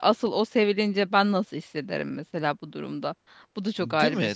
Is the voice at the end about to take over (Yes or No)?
Yes